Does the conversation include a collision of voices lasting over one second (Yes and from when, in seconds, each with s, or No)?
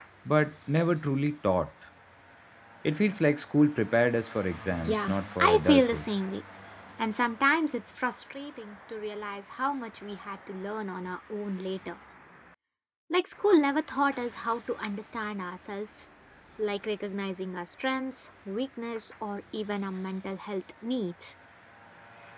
Yes, from 4.8 s